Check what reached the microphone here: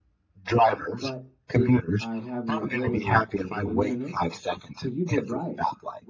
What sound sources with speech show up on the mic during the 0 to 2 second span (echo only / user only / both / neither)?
both